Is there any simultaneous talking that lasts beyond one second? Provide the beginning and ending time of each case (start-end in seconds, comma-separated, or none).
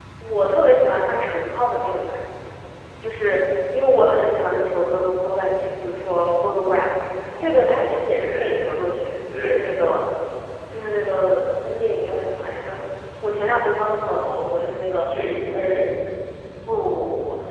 7.4-8.6